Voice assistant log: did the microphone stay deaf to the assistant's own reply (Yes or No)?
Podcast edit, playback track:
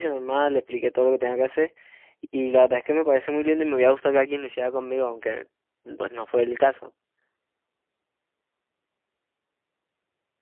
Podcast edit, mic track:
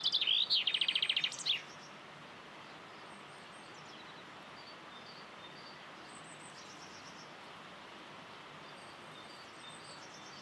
Yes